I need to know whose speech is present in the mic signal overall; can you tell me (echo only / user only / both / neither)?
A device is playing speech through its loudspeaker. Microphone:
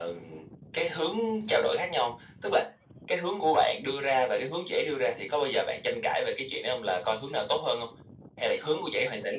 echo only